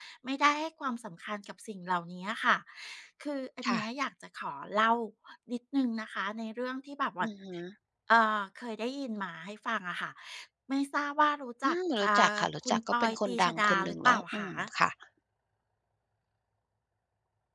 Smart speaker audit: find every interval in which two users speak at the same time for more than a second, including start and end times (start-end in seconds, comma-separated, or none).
11.6-14.5